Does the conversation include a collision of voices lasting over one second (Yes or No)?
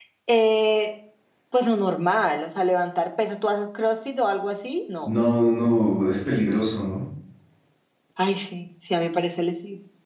No